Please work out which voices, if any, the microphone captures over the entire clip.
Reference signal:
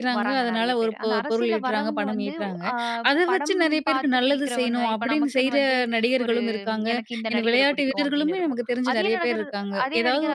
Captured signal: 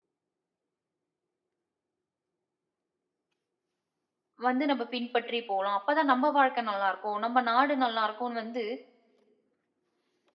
user only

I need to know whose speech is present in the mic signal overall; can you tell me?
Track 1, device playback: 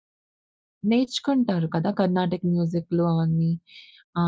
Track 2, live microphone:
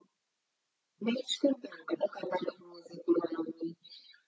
echo only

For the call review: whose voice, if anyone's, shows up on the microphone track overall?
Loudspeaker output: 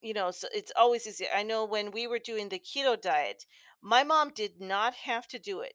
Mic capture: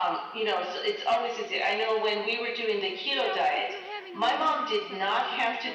both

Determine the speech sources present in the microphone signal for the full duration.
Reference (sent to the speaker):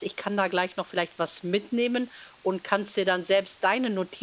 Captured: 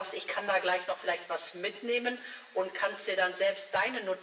echo only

